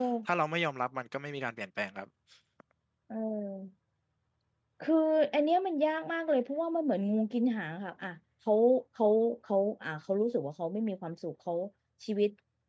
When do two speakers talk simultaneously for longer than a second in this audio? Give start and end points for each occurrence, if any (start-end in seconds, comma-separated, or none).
none